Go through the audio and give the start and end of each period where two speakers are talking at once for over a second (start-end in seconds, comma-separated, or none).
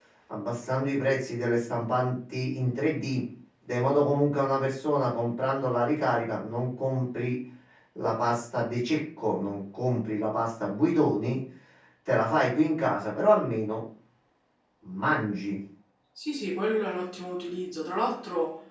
none